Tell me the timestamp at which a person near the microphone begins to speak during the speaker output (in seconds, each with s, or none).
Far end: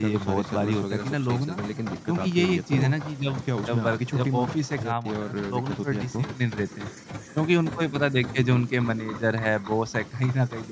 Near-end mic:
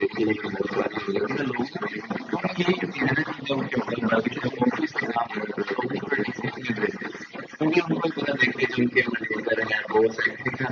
none